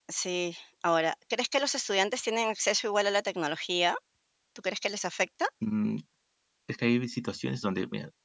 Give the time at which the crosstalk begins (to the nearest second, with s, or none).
none